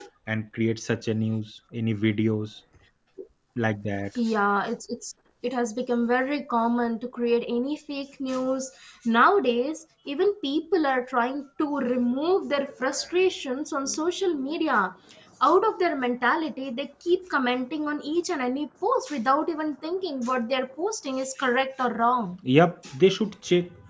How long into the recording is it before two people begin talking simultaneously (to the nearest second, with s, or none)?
none